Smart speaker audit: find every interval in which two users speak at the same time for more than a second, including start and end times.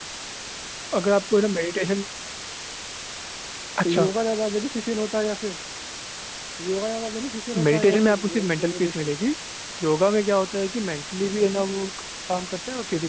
7.5-9.1

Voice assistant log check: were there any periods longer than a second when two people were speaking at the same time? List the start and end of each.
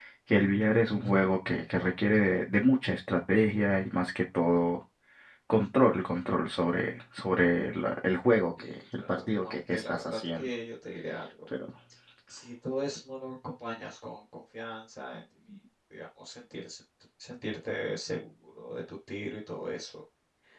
8.6-10.5

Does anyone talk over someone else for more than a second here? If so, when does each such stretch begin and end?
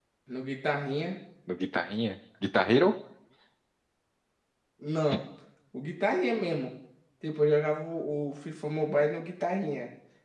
none

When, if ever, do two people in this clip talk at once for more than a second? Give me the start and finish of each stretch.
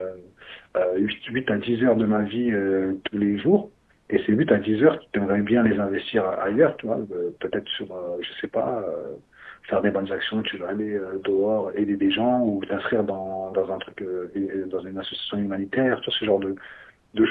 none

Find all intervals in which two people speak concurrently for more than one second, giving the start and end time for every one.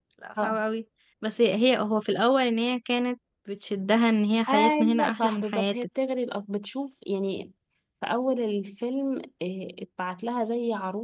4.5-5.8

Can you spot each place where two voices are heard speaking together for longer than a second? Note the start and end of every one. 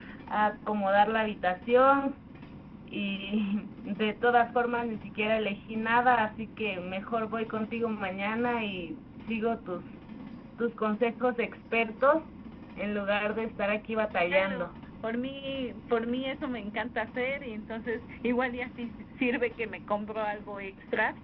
none

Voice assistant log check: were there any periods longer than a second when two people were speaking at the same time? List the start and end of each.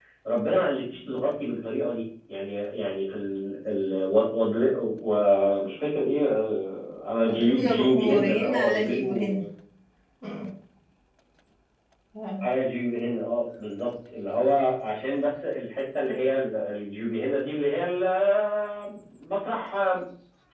7.2-9.4

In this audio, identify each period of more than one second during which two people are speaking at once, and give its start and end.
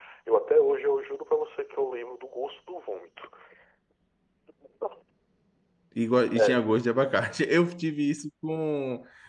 none

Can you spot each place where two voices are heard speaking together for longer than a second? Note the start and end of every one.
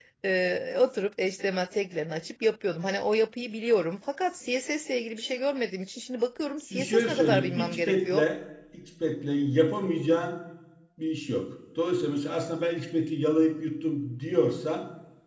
6.7-8.2

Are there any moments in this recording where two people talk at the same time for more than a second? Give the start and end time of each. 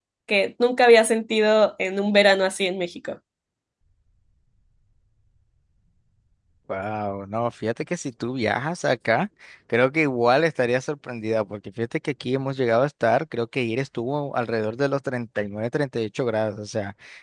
none

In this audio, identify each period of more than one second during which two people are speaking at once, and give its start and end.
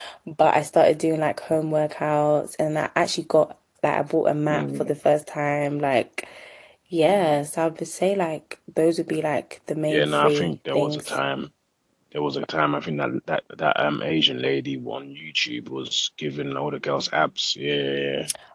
9.9-11.2

